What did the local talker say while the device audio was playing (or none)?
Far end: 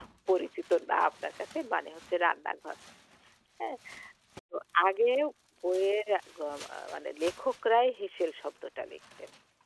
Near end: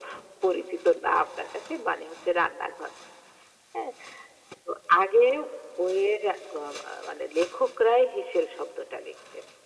none